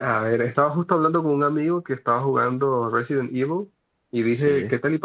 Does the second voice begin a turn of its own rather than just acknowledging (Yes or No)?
No